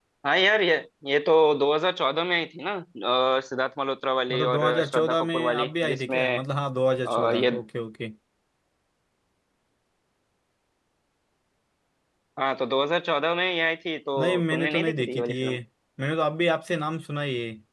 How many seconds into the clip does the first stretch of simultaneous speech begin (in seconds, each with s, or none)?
4.3 s